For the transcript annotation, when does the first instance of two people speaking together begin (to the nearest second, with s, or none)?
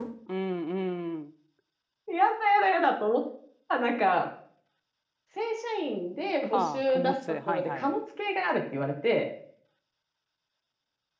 6 s